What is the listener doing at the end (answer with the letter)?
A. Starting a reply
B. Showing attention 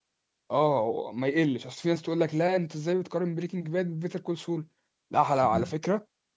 B